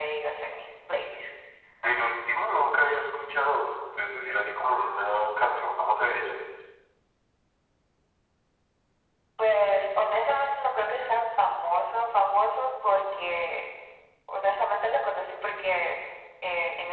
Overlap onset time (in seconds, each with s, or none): none